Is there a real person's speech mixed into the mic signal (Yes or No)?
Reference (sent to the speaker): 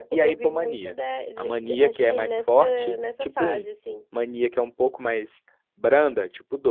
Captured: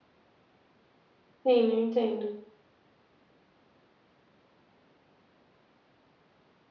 Yes